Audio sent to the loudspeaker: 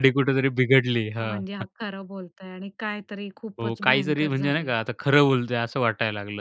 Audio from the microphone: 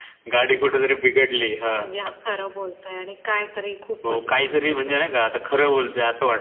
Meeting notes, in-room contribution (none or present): none